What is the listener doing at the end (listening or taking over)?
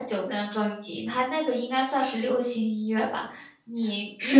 taking over